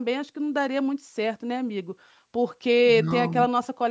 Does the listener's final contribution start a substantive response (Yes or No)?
No